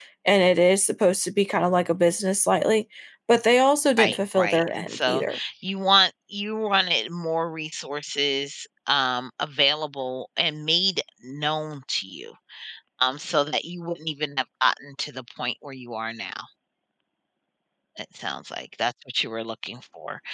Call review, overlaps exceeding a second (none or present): present